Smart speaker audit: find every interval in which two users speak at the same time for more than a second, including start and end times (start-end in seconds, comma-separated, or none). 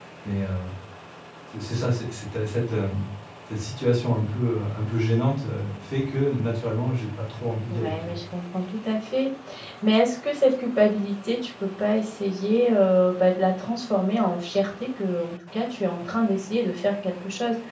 none